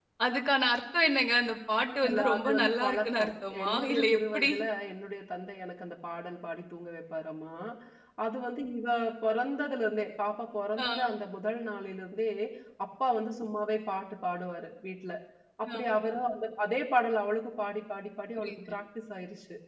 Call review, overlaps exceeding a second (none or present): present